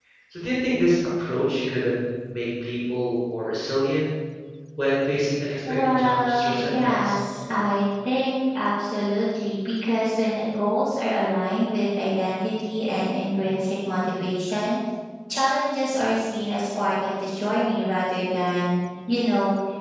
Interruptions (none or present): present